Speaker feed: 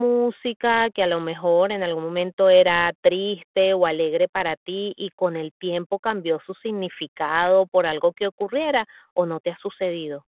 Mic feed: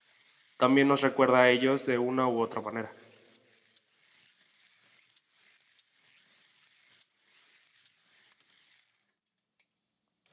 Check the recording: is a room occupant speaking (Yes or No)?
Yes